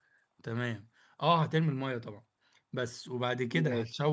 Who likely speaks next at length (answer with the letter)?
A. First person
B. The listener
A